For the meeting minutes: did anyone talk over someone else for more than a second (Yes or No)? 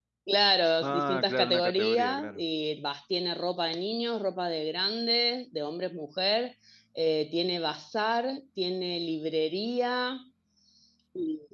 Yes